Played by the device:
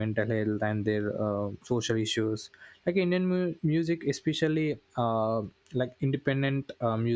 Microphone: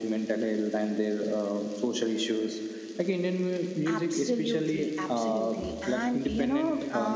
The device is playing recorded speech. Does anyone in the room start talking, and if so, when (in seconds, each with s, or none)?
3.9 s